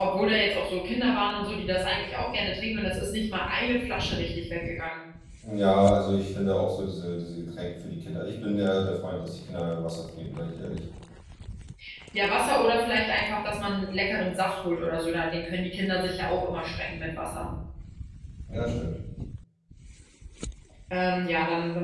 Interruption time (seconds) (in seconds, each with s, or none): none